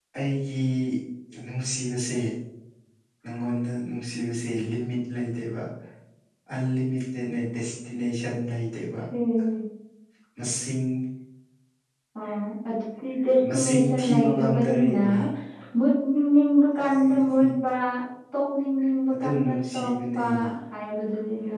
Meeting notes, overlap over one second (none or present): present